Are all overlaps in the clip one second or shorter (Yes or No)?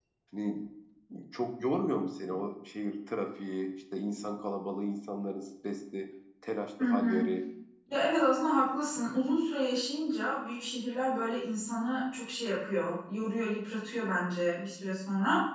Yes